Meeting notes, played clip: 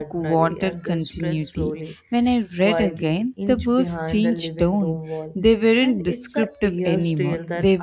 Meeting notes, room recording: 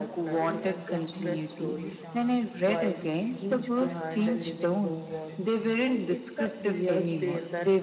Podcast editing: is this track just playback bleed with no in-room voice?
No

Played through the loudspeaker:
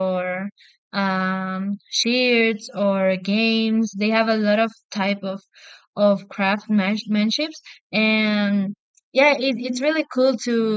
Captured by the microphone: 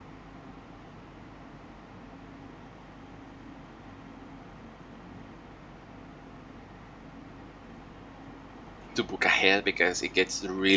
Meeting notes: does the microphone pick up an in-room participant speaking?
Yes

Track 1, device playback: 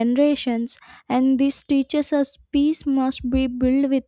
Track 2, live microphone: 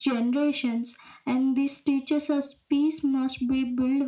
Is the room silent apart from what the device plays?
Yes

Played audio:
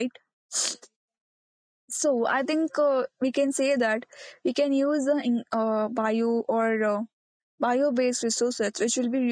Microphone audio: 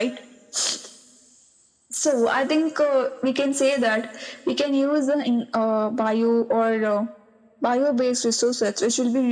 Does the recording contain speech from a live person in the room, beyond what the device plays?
No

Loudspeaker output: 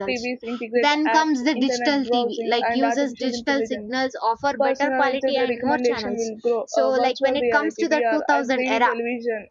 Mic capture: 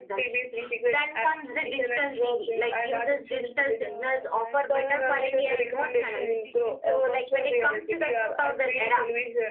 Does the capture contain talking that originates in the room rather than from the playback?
Yes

